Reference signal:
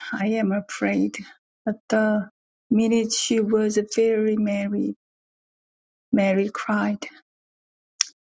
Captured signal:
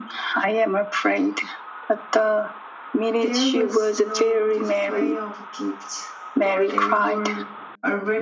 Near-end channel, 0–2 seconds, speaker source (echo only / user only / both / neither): echo only